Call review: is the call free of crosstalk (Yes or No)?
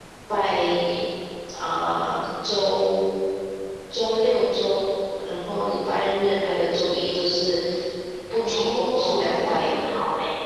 No